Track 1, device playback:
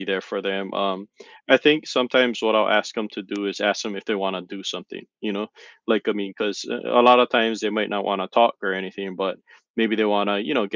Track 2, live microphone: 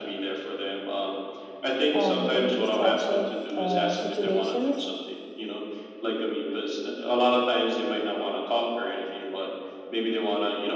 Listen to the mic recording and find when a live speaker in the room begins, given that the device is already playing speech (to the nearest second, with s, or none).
2 s